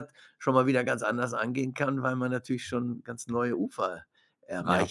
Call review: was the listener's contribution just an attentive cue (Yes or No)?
No